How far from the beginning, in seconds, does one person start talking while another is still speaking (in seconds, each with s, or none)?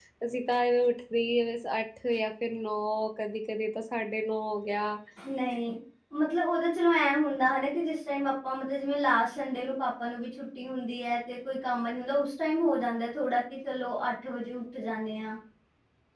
none